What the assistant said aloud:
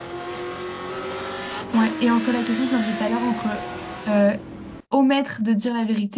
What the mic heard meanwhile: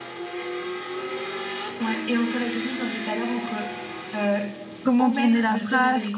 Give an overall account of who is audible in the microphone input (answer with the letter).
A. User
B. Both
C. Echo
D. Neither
B